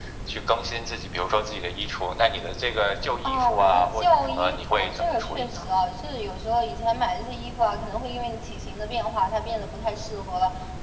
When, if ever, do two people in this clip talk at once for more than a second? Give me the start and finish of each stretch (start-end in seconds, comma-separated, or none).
3.2-5.6